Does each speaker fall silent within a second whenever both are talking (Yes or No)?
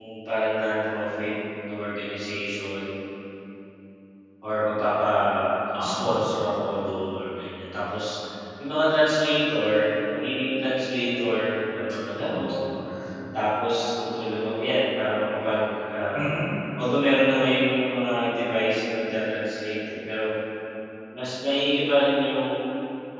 Yes